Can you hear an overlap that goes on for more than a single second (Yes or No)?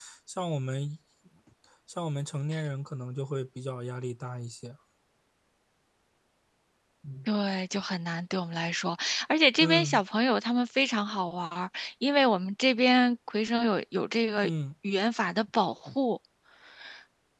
No